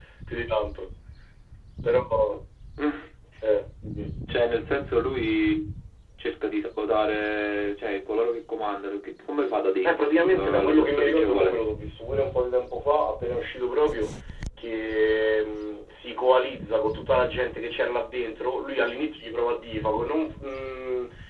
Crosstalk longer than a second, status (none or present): present